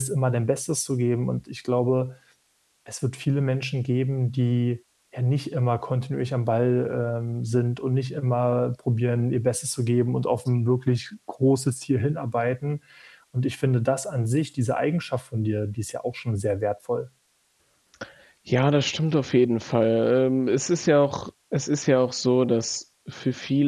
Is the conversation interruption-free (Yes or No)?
Yes